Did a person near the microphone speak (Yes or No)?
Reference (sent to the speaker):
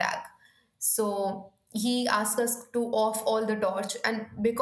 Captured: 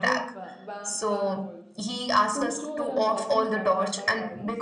Yes